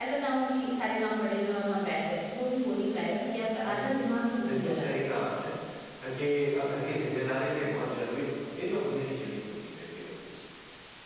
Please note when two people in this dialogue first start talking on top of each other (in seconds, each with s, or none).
3.6 s